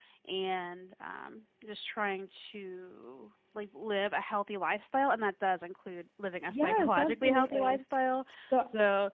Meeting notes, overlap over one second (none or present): present